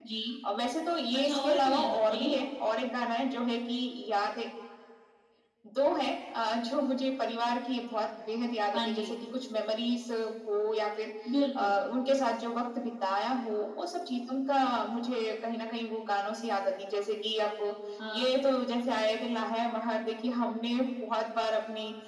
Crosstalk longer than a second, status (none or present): present